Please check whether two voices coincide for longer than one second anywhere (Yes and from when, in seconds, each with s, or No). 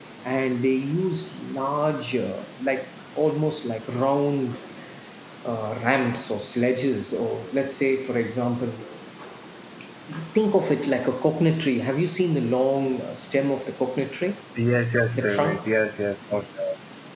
No